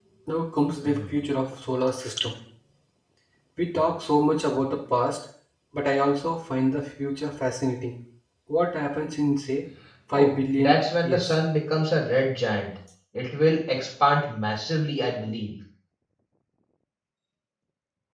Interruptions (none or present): present